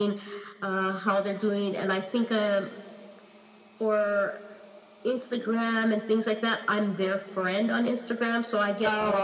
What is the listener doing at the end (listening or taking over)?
listening